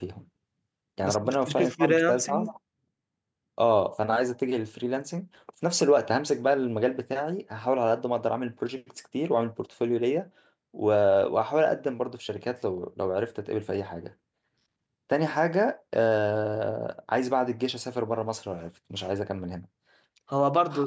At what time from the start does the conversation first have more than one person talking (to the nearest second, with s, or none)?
1 s